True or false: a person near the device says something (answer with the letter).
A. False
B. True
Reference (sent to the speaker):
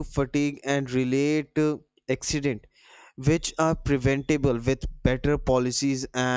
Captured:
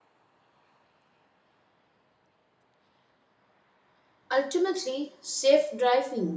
B